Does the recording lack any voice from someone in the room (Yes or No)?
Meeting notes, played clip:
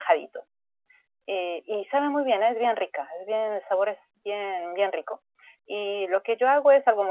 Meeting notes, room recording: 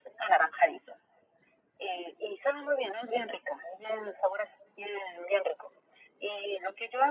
Yes